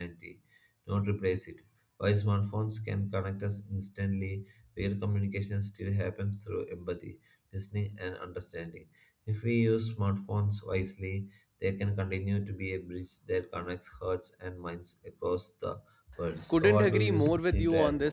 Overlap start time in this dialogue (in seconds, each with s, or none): 16.4 s